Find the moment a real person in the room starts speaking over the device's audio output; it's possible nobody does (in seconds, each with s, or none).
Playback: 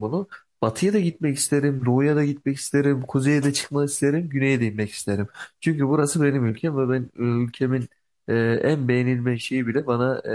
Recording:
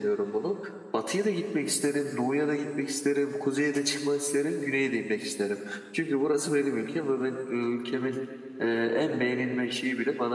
none